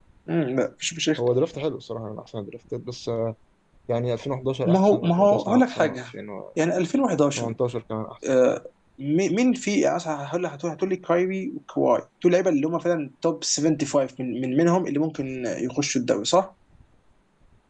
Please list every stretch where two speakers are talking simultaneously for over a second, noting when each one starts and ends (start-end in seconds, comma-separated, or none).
4.7-6.0